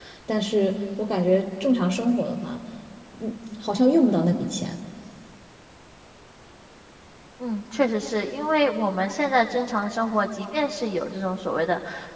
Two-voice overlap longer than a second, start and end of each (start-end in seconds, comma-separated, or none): none